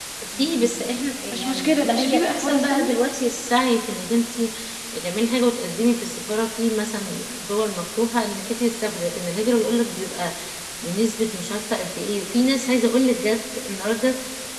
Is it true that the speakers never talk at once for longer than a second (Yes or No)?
No